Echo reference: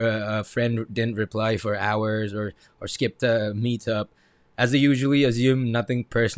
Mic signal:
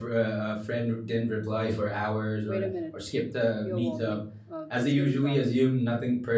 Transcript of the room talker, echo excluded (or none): Wait a minute, you're wobbling. Uh, it's getting garbled.